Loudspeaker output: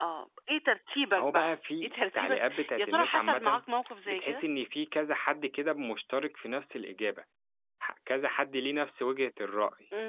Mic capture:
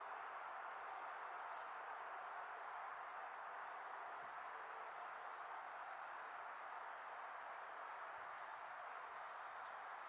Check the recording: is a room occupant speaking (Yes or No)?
No